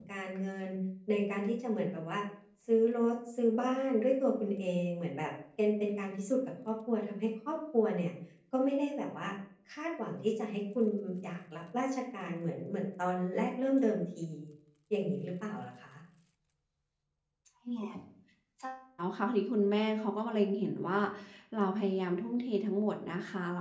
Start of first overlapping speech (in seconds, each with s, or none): none